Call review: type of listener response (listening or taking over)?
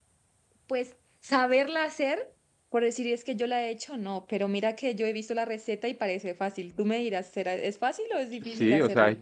taking over